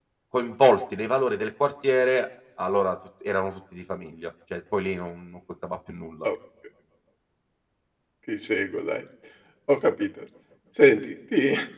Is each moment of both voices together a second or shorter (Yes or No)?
Yes